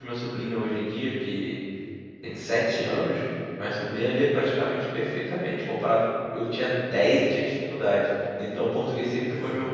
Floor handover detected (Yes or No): No